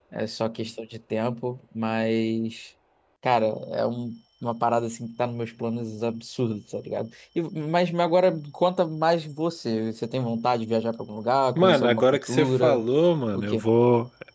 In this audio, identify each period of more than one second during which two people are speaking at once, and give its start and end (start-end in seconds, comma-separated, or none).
11.6-12.8